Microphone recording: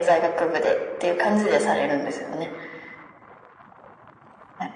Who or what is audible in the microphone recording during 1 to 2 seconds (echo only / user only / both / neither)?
echo only